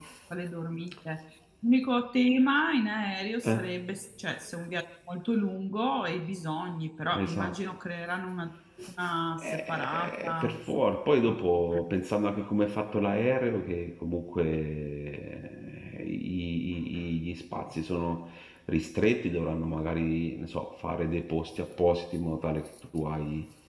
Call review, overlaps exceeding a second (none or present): present